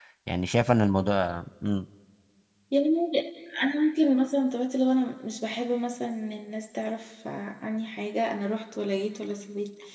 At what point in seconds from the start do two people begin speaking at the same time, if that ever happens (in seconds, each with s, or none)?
none